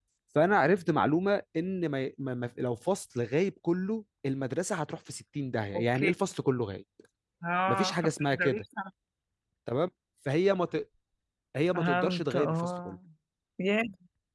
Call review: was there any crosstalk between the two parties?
Yes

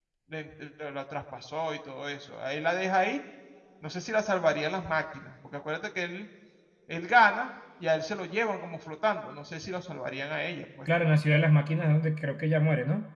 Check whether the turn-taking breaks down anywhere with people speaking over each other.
No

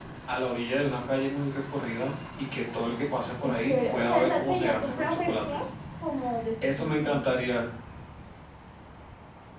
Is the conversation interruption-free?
No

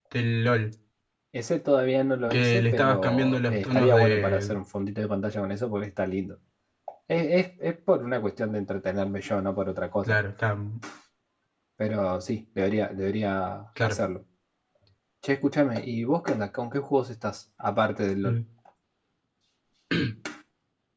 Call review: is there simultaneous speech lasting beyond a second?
Yes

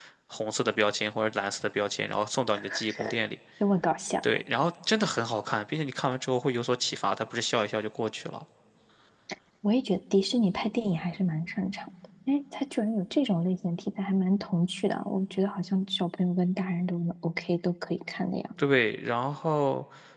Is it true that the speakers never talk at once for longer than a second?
Yes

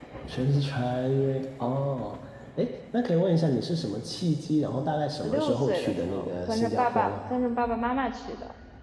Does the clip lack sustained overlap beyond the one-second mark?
No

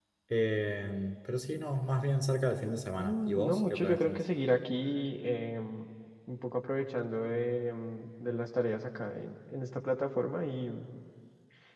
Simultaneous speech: Yes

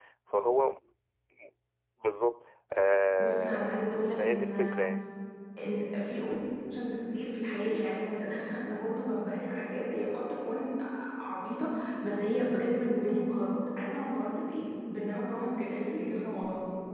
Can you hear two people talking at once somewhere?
Yes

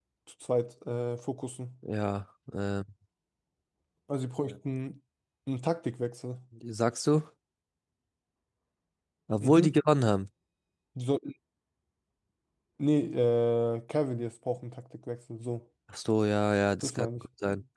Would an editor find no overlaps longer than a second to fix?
Yes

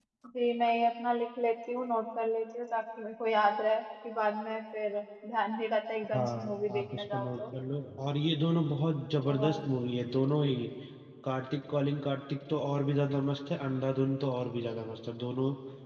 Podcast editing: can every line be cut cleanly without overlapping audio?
No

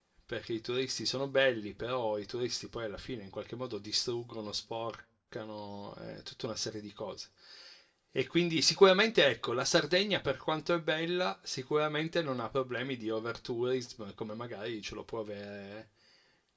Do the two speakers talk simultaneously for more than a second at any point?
No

